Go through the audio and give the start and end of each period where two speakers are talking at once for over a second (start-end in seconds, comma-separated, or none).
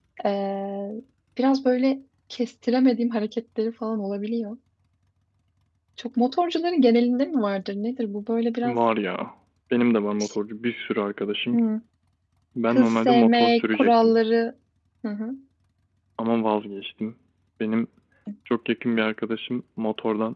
12.7-14.2